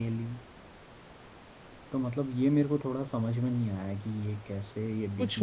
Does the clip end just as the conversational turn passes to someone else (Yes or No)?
Yes